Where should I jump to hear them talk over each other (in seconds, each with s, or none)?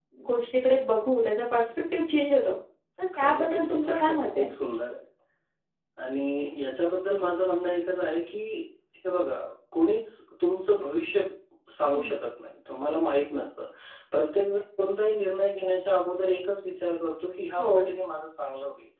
3.2 s